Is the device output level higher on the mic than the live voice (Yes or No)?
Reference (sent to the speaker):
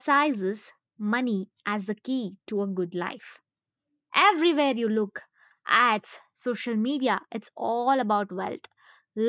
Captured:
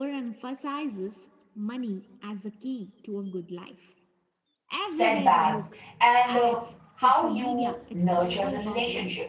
No